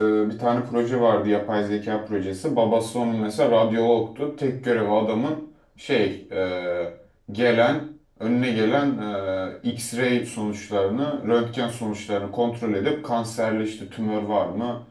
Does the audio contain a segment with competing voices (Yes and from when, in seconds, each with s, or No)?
No